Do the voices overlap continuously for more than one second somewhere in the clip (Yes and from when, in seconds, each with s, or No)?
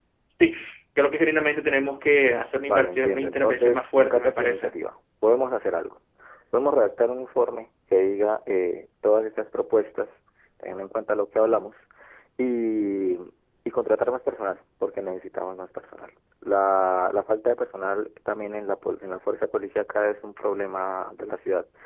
Yes, from 2.6 s